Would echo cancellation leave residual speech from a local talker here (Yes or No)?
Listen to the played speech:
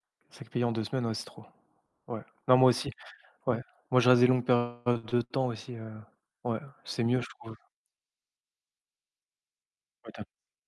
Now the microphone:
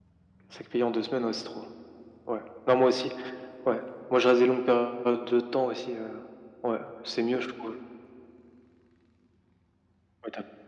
No